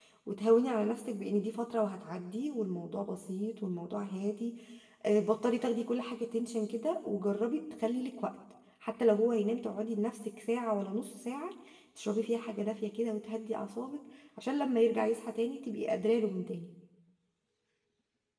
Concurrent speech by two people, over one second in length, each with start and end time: none

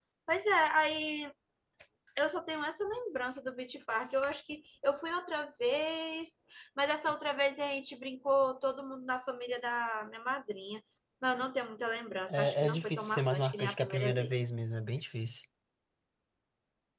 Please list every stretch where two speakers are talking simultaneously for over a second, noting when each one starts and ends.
12.3-14.4

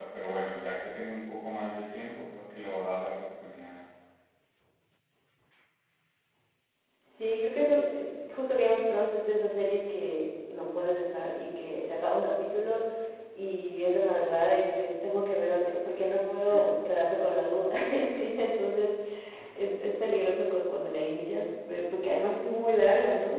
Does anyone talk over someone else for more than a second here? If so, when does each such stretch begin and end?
none

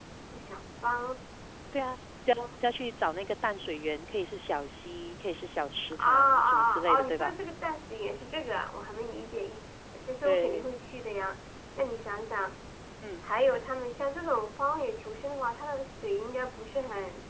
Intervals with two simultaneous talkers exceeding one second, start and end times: 6.0-7.4

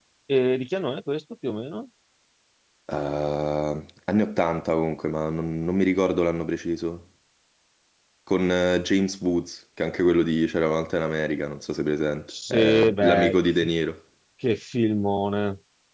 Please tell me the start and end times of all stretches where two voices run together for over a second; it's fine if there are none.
12.3-13.7

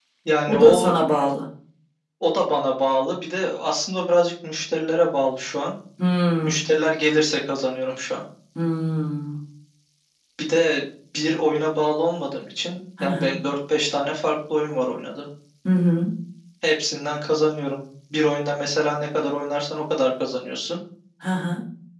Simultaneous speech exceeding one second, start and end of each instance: none

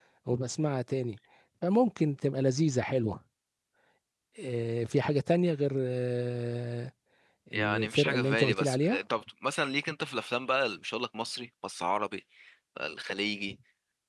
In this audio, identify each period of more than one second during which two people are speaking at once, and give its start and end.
7.5-9.0

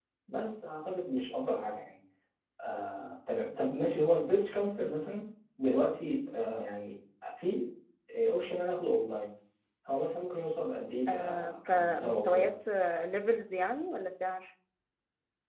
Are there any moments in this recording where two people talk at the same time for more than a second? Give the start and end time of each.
11.1-12.5

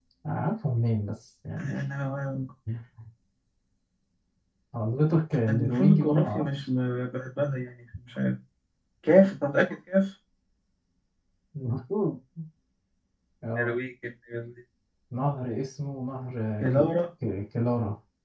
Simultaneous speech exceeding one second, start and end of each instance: 5.5-6.7

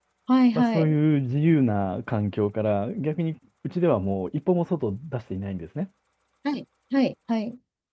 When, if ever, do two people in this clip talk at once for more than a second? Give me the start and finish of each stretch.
none

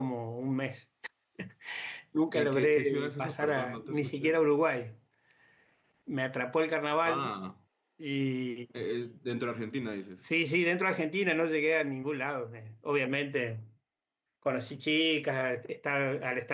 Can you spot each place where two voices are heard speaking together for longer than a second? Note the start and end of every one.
2.3-4.4

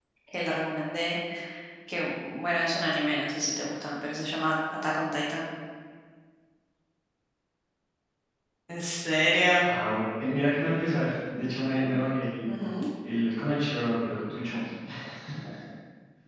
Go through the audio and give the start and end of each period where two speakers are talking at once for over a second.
none

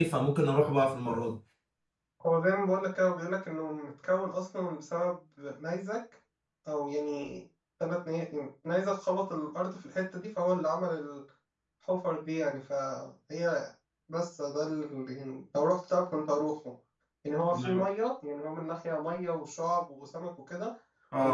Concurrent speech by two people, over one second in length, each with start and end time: none

